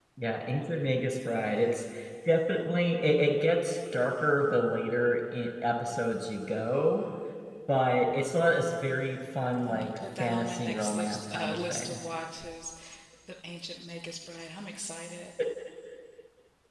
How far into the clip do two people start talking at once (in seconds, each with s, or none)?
9.7 s